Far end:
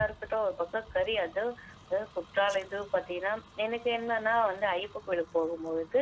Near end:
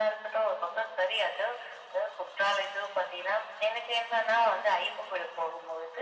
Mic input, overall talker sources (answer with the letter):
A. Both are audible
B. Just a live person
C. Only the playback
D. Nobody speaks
C